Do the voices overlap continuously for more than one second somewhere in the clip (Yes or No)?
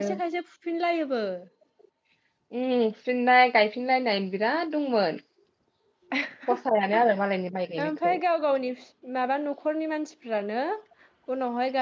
No